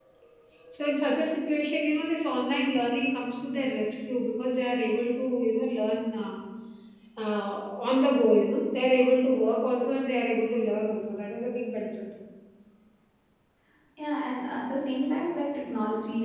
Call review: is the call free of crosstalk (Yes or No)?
Yes